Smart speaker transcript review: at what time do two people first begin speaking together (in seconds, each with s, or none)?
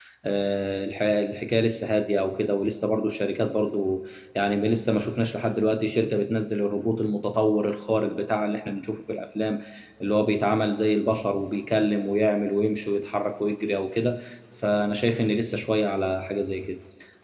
none